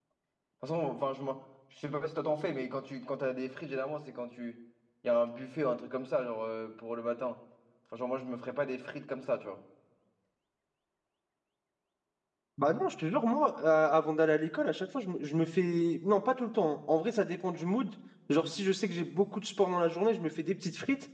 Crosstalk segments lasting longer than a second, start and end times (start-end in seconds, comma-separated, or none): none